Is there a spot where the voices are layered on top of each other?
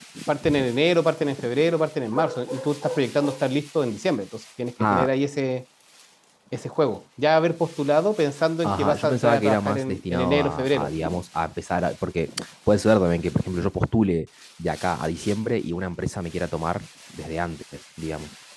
Yes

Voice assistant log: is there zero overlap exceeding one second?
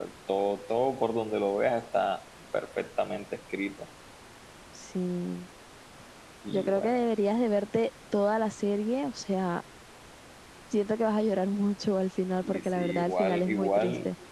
No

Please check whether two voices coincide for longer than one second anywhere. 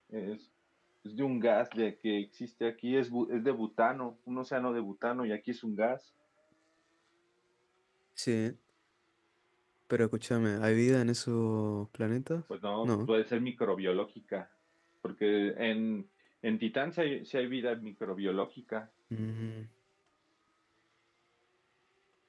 No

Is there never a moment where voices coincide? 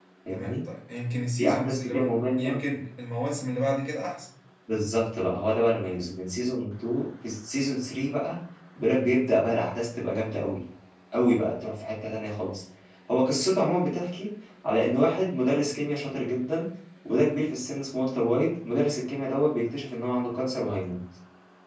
No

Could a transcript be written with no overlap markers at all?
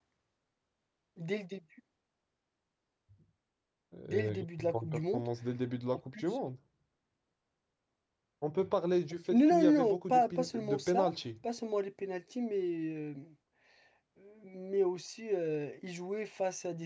No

